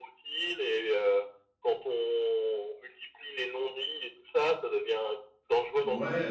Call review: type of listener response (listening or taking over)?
taking over